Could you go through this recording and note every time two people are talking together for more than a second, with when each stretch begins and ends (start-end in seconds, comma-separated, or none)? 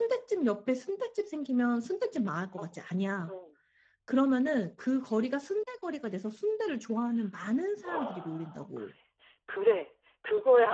none